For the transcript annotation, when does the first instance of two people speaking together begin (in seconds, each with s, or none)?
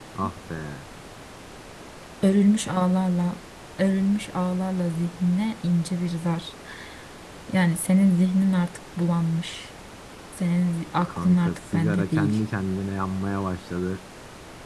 11.1 s